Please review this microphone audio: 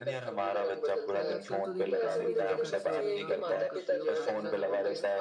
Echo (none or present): present